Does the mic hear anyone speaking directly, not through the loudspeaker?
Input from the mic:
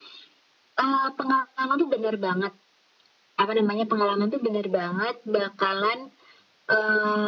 No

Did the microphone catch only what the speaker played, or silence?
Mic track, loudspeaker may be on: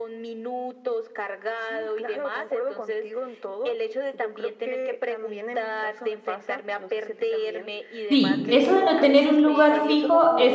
No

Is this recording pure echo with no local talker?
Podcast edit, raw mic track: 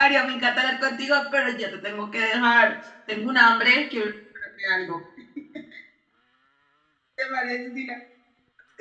No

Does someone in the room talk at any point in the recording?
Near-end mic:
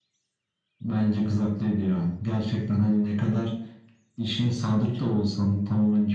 No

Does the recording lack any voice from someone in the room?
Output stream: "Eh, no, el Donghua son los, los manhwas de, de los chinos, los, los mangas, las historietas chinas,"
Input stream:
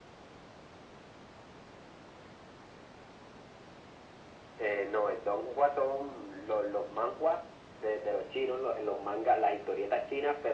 Yes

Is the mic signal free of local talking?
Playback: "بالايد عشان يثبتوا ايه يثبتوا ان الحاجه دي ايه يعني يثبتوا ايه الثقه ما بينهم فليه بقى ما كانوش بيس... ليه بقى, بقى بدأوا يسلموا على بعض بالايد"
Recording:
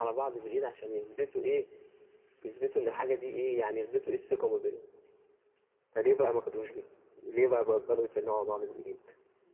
Yes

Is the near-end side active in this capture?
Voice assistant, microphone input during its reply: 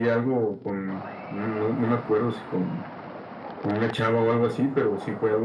No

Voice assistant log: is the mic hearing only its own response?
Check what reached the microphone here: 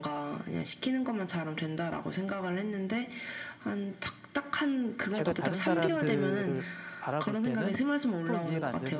No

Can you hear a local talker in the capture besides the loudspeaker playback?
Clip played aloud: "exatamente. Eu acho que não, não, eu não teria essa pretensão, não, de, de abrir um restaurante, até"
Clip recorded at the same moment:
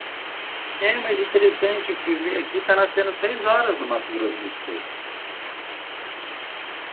Yes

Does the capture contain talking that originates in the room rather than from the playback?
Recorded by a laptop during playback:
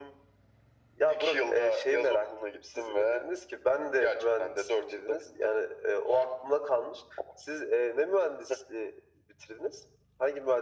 No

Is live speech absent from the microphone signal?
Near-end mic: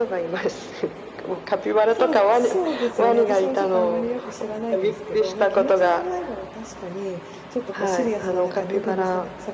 No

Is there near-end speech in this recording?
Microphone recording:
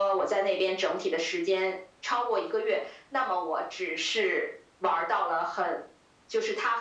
No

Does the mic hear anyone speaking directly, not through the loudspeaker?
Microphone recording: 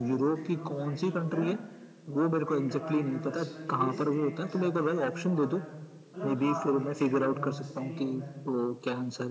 Yes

